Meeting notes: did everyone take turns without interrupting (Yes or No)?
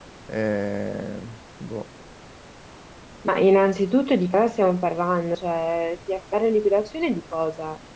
Yes